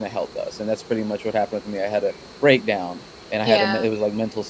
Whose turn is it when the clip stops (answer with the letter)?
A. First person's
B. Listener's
A